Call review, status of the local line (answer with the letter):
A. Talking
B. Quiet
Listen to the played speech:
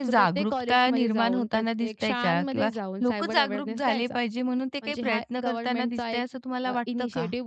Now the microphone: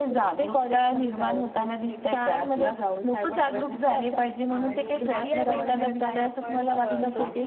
A